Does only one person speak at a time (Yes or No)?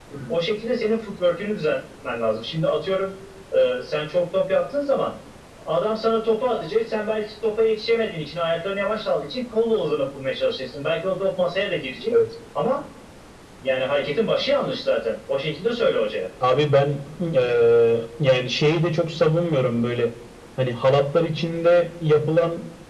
Yes